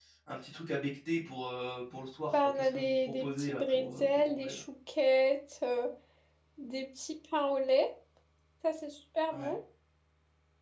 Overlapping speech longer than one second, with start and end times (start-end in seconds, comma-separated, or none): 2.3-4.6